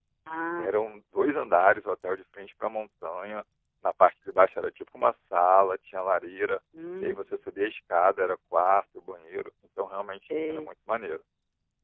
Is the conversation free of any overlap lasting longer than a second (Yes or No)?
Yes